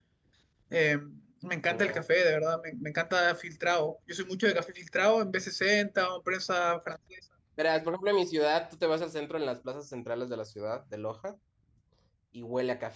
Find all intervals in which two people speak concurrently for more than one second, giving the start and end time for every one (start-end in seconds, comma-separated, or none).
none